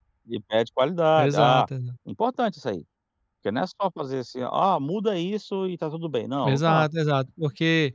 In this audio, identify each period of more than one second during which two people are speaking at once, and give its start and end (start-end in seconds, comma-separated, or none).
none